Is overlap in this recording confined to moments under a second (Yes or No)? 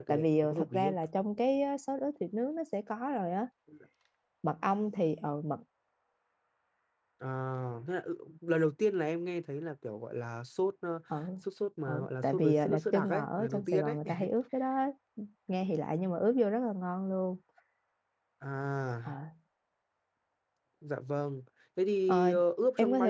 No